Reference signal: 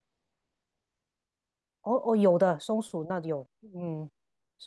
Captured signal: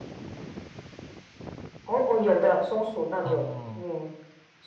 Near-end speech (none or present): present